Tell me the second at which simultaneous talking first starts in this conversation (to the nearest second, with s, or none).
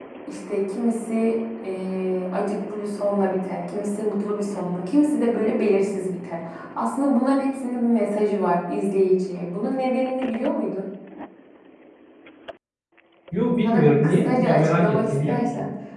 14 s